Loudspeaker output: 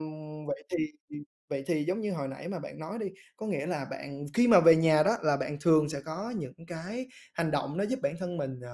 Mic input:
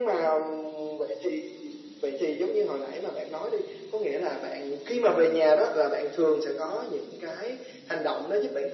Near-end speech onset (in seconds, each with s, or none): none